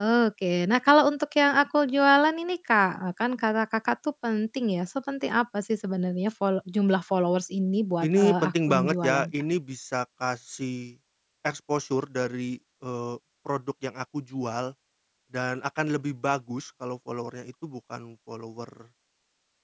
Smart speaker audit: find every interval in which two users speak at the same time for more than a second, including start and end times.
8.0-9.3

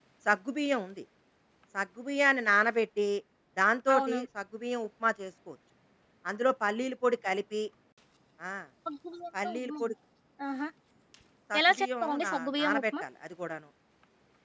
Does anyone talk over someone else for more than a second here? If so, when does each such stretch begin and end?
11.6-12.8

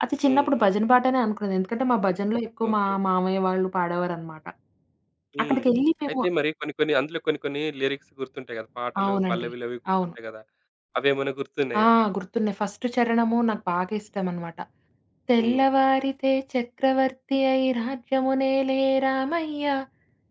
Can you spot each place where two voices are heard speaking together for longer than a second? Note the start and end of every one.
none

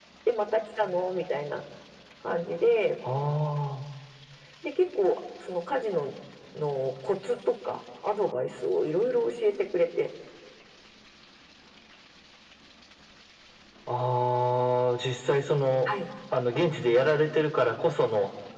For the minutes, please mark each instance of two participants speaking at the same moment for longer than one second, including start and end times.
none

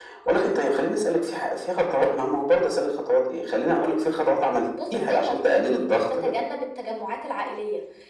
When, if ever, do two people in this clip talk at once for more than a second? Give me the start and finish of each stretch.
4.9-6.3

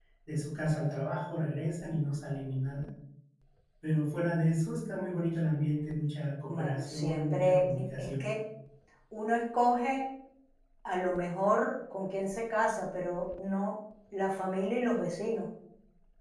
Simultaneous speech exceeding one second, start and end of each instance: 6.5-8.2

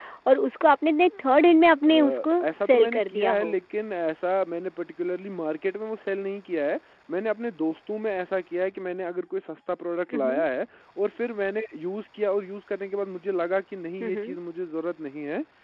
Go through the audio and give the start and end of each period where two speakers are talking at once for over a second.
1.9-3.6

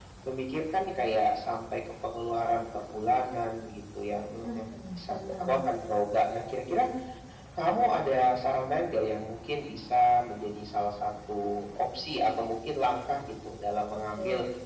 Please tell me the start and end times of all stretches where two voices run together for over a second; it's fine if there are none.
4.4-5.7

